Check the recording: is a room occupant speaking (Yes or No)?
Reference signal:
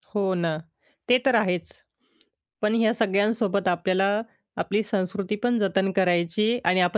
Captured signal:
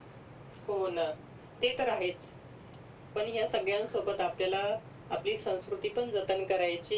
No